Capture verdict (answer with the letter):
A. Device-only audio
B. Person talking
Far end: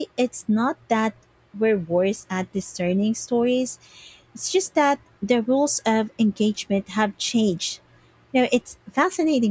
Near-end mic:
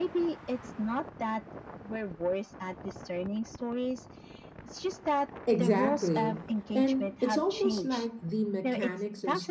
B